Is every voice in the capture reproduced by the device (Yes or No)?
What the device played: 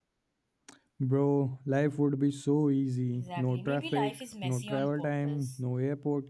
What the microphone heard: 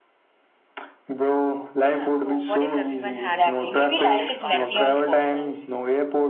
No